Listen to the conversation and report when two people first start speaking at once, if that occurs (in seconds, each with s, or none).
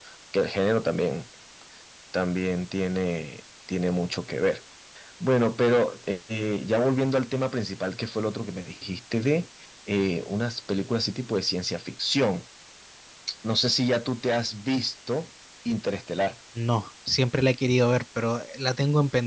none